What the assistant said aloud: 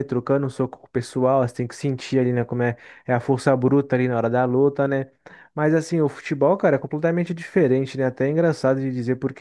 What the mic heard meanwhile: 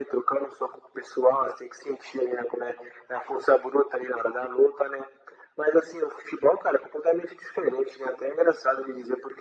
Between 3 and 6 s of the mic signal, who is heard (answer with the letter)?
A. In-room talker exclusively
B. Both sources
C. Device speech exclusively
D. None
C